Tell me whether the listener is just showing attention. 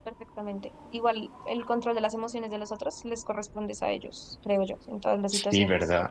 No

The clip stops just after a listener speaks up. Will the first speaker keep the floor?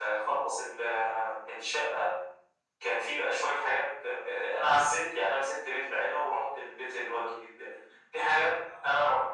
Yes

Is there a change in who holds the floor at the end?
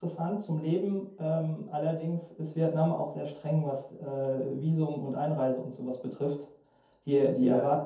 No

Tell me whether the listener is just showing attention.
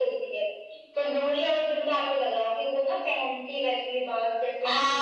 No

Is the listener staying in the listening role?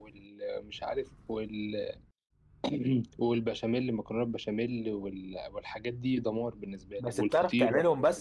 No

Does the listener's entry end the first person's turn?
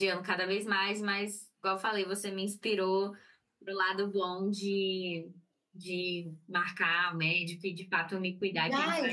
Yes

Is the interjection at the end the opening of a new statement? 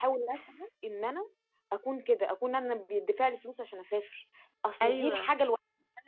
No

